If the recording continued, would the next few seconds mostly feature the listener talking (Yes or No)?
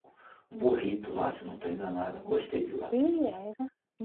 Yes